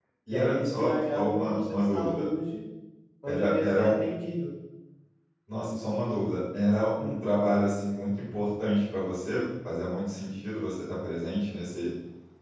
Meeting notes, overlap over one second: present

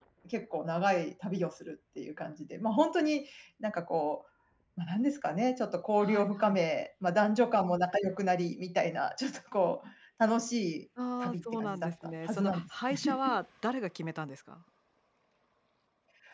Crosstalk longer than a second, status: present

